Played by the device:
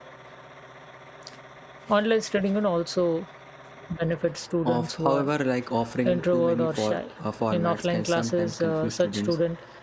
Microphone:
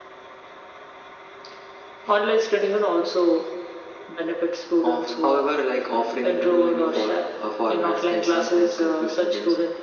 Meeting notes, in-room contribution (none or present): none